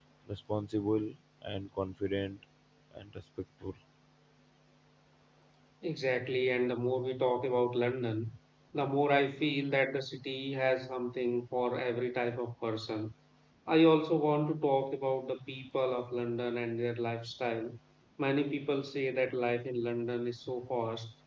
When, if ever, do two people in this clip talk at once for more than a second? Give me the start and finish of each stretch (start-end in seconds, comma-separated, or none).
none